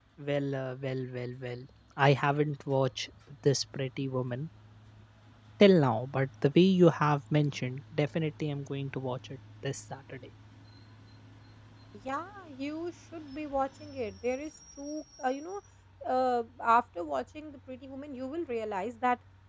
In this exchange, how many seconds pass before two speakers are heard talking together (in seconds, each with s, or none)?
none